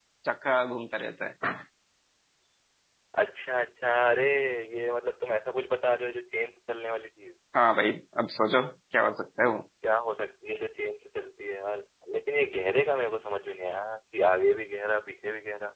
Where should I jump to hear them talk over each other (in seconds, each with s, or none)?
none